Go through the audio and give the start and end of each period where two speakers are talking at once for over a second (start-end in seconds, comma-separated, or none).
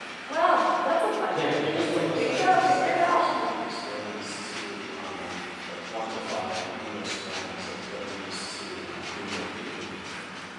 1.3-3.2